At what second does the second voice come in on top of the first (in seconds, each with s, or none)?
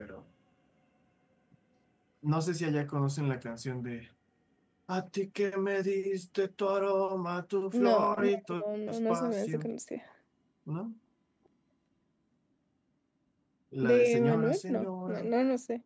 7.7 s